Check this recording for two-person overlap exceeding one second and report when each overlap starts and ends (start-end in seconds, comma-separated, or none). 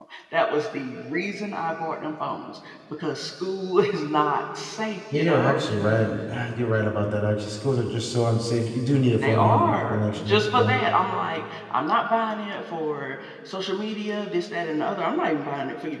9.2-10.8